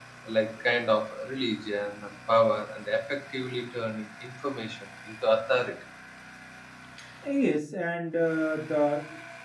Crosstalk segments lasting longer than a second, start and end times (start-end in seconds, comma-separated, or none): none